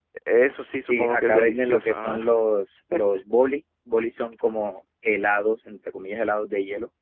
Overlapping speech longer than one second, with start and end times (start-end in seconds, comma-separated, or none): 0.8-2.2